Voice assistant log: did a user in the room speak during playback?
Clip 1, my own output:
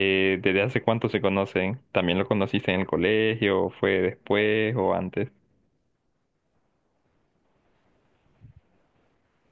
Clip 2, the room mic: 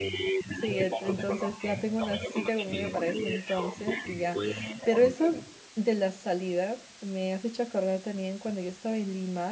Yes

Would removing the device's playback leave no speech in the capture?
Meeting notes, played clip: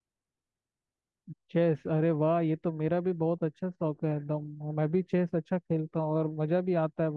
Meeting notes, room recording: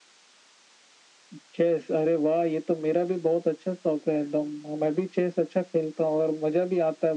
Yes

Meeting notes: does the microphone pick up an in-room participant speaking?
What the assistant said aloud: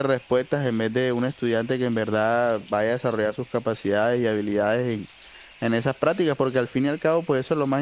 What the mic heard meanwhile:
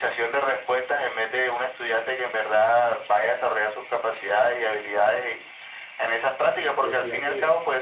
Yes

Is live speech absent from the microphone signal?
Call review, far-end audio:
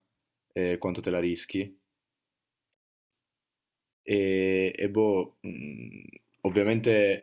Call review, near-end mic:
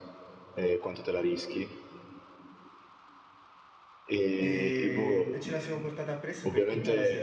No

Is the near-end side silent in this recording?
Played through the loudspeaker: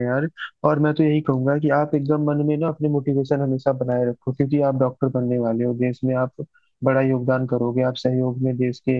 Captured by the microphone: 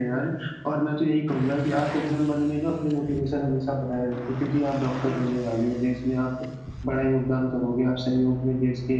Yes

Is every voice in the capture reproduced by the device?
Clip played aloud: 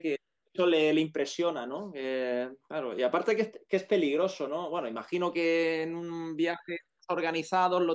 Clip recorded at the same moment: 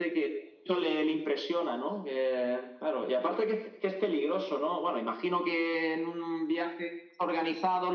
Yes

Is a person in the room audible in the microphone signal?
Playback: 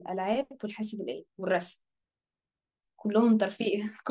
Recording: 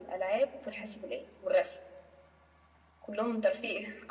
Yes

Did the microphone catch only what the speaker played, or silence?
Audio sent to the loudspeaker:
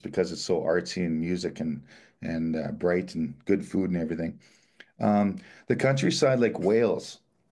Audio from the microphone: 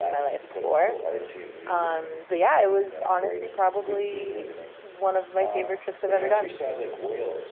No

